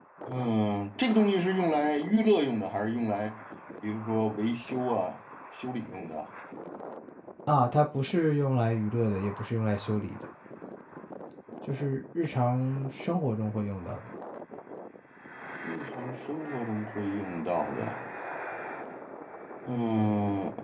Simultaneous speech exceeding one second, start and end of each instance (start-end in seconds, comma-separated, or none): none